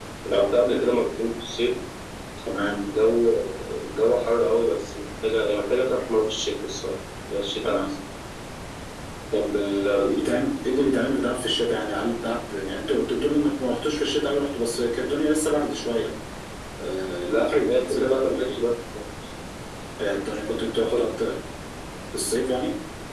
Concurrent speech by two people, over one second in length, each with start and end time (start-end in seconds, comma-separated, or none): 17.3-18.5